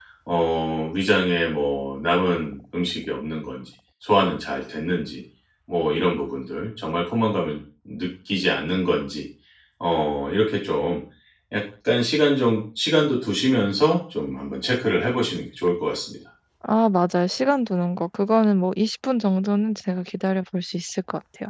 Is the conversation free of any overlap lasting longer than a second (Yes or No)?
Yes